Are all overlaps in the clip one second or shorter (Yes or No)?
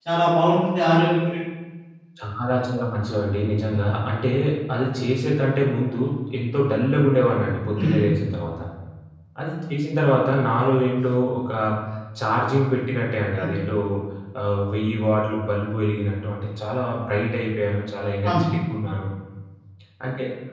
Yes